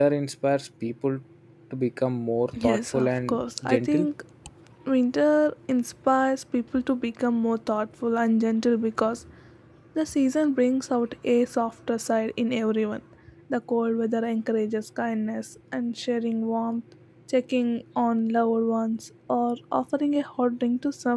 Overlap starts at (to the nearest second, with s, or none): 3 s